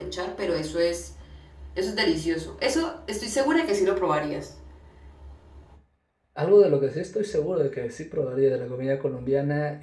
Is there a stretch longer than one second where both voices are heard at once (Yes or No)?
No